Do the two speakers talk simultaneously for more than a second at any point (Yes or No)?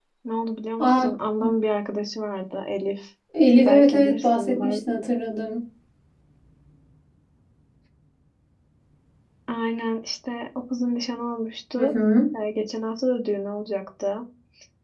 Yes